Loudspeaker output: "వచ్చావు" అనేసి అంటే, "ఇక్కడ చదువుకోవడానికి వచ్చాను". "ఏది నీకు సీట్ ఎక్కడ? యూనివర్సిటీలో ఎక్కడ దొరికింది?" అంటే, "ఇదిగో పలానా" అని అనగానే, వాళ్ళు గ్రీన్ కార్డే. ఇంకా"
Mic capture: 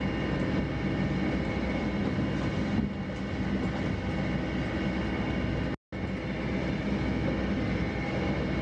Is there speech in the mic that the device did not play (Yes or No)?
No